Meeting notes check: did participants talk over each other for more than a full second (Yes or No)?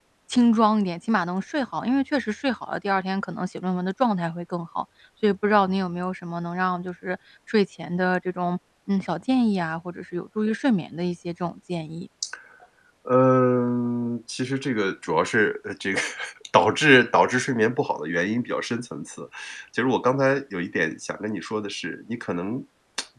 No